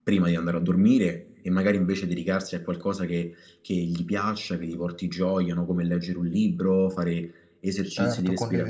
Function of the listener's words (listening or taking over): listening